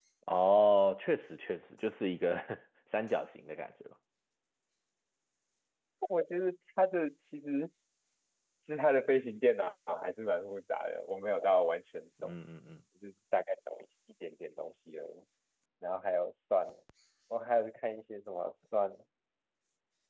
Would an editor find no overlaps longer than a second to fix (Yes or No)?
Yes